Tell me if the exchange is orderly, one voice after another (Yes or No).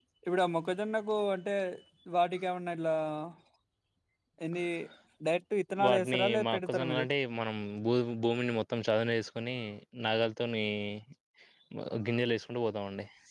No